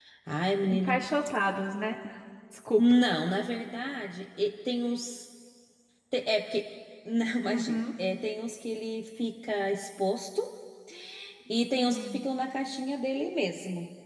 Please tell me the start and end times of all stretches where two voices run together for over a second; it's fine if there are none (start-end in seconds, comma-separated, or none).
none